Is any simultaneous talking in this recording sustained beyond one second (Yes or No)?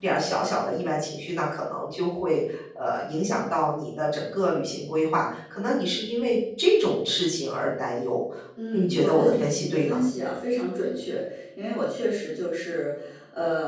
Yes